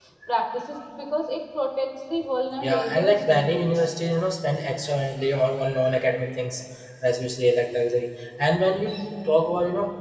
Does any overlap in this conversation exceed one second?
Yes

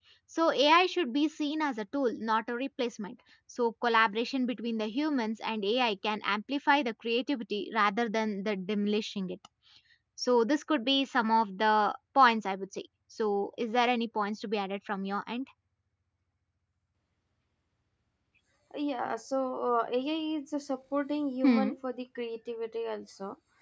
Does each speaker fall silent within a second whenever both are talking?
Yes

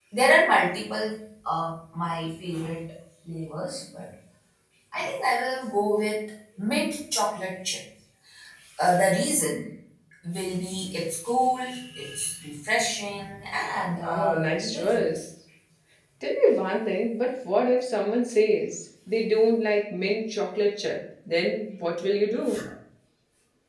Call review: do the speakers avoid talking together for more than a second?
No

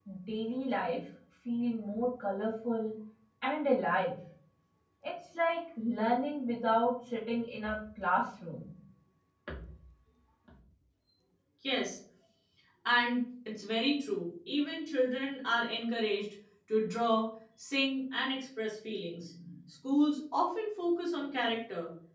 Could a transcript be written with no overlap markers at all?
Yes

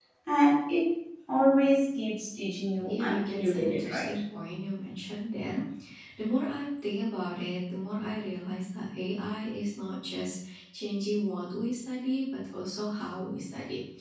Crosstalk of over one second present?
Yes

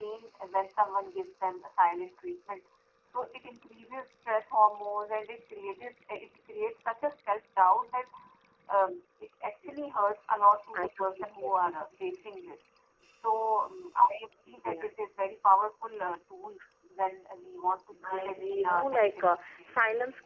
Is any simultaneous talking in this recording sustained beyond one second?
Yes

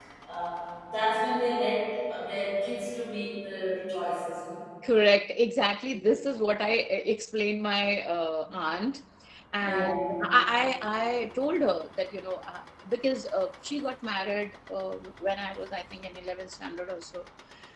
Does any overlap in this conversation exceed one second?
No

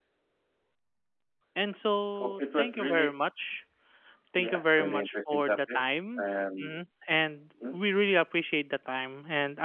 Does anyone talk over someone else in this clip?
Yes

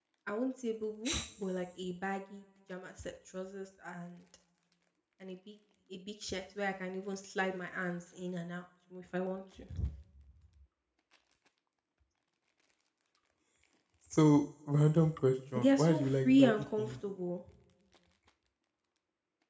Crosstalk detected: Yes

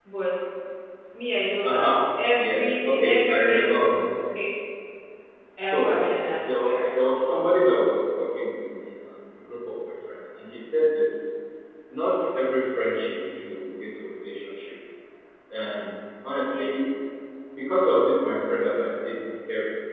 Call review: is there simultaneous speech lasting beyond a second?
Yes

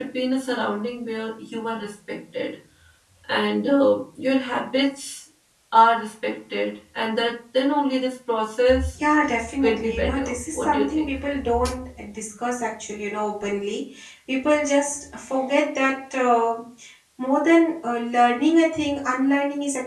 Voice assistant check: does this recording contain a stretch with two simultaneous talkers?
Yes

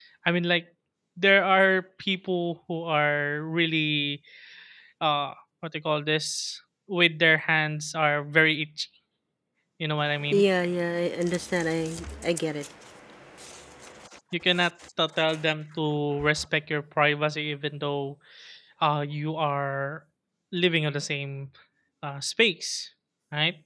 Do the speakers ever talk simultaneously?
No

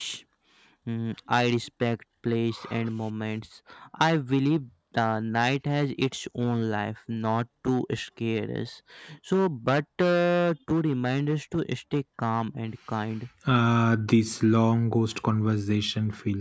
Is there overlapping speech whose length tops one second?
No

